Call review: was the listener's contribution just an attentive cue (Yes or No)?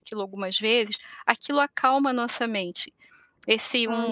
Yes